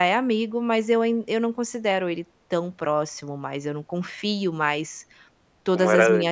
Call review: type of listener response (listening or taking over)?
listening